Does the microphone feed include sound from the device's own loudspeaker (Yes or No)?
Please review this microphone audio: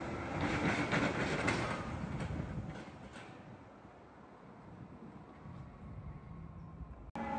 No